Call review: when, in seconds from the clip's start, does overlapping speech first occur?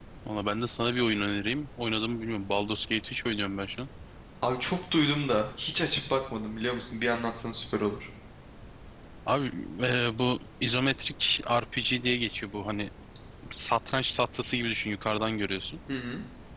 none

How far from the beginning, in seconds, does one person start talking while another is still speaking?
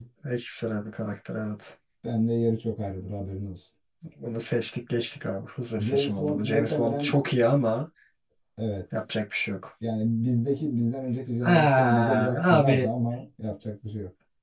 5.8 s

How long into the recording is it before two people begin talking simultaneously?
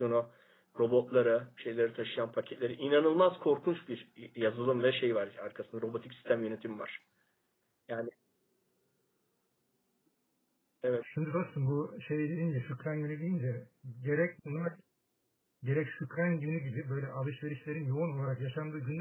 none

